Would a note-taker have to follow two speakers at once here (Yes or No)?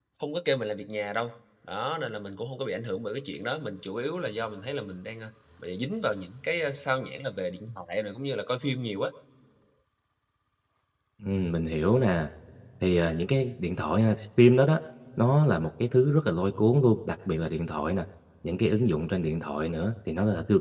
No